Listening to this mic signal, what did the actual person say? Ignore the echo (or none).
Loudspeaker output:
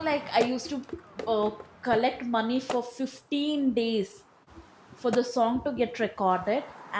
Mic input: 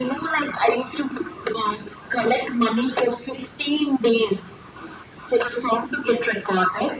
none